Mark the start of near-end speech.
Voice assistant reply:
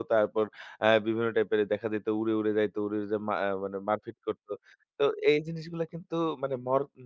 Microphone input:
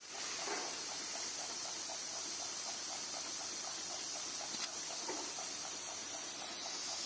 none

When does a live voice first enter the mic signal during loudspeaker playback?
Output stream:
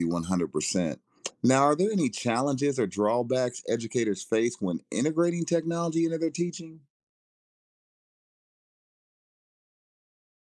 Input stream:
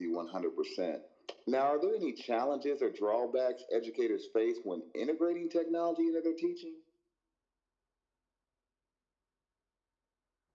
none

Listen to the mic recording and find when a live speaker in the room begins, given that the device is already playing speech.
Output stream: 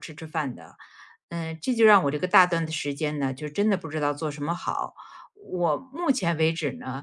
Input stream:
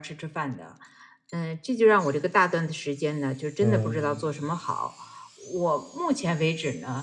4 s

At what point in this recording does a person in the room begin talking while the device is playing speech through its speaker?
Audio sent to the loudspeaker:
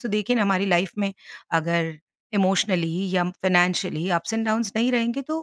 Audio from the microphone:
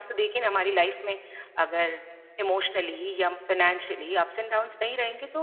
none

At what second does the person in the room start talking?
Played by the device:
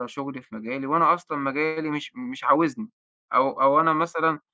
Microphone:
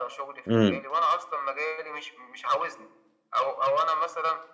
0 s

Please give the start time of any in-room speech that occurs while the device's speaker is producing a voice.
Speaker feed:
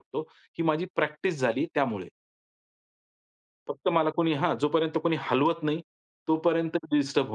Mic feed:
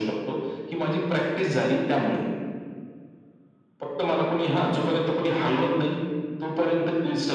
none

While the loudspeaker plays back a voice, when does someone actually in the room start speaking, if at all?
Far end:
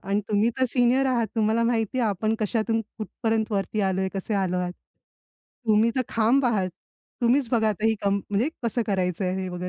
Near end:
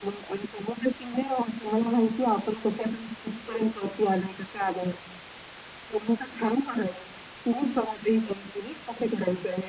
none

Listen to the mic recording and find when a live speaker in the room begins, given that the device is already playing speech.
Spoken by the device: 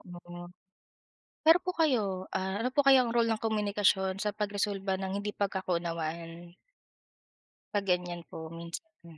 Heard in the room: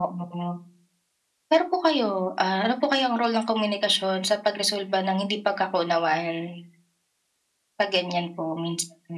none

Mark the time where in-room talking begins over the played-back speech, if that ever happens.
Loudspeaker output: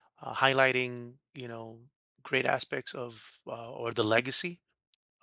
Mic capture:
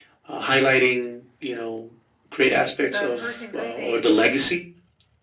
3 s

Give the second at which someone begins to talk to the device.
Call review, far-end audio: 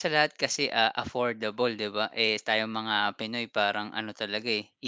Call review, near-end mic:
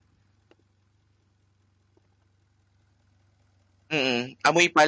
4 s

